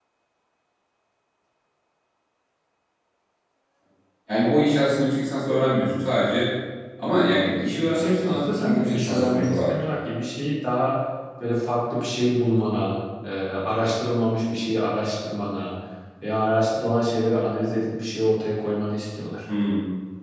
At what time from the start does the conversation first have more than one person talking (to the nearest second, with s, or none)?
8 s